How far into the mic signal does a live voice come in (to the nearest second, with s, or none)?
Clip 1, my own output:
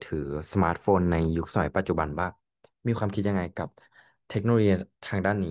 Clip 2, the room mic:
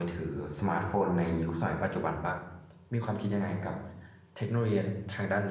none